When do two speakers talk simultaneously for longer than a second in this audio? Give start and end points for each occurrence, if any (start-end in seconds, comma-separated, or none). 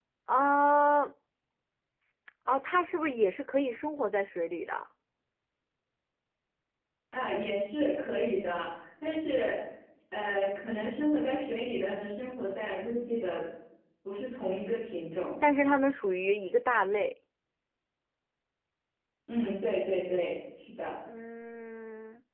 none